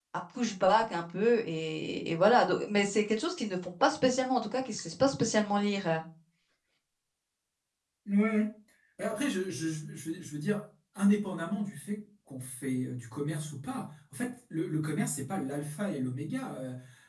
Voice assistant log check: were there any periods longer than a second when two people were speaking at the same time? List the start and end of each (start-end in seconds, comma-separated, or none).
none